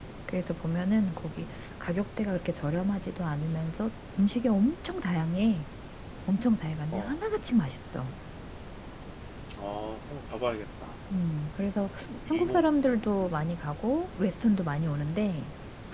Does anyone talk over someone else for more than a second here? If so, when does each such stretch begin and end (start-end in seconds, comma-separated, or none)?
none